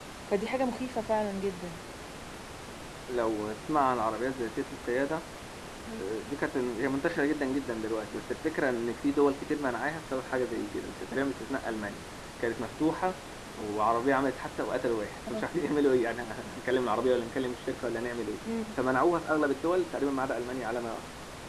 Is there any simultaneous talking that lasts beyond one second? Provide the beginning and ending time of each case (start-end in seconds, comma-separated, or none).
none